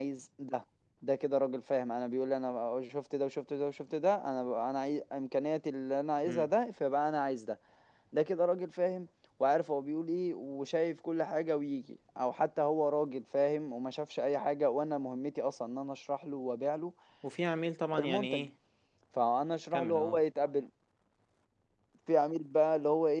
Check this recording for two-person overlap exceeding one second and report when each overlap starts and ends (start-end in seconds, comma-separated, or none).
none